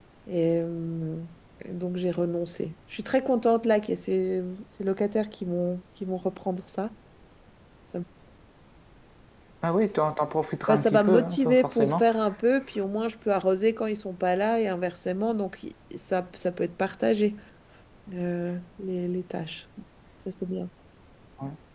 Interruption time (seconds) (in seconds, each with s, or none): 10.7 s